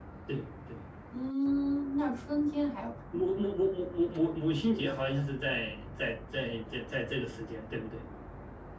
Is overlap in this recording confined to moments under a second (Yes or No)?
Yes